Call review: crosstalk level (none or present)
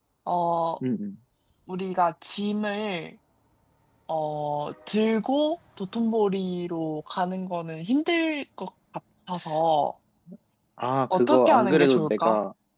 present